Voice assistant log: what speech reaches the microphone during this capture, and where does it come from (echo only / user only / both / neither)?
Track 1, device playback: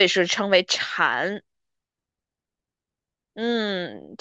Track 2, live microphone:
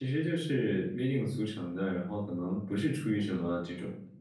user only